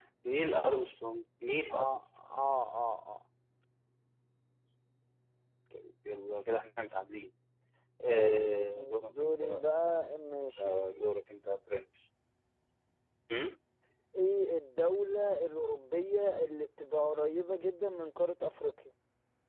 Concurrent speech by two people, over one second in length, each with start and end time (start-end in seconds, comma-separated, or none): 8.1-9.6